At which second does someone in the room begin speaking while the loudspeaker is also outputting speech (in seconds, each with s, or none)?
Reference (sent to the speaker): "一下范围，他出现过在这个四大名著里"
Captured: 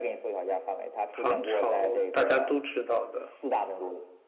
1.1 s